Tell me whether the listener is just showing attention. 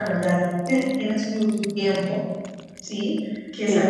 Yes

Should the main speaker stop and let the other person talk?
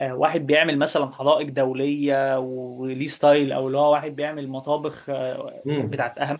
Yes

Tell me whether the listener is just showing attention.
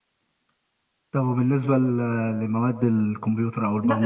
No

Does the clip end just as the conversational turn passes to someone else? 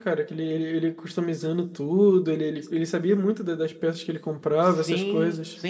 Yes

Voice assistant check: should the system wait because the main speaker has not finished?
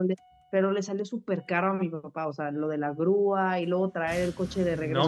No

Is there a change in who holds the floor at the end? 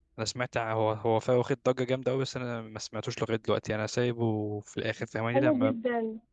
Yes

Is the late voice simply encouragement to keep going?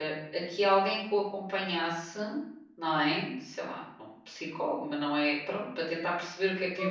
No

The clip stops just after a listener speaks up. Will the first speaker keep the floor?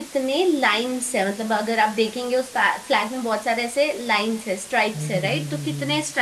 Yes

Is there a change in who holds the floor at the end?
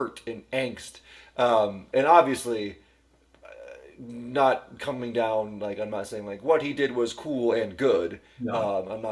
No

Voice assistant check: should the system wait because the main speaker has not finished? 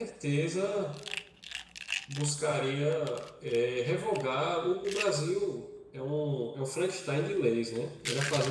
Yes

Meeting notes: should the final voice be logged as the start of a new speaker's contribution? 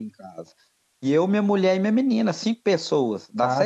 Yes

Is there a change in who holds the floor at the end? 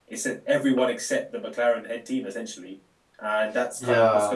No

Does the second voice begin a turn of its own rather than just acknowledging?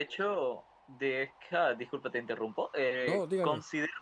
No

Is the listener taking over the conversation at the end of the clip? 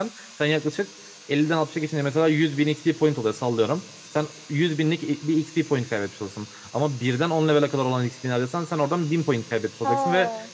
No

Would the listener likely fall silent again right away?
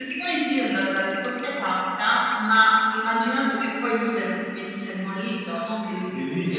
No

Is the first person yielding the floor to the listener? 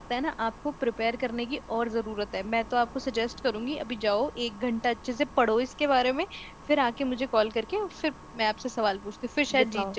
Yes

